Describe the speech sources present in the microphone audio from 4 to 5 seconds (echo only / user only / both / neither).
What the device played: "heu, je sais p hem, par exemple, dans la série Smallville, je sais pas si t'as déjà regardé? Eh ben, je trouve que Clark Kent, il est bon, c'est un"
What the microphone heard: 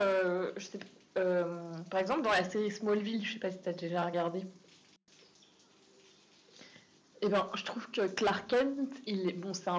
echo only